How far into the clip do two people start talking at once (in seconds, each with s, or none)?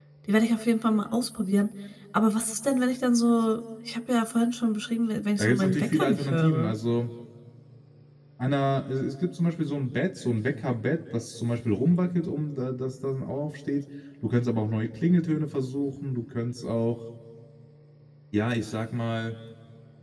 5.4 s